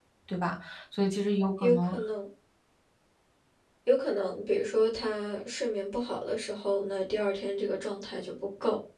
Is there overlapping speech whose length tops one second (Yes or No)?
No